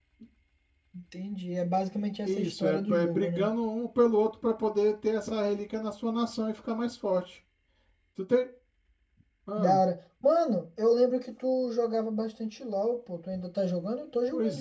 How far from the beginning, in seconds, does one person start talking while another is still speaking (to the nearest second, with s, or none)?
2 s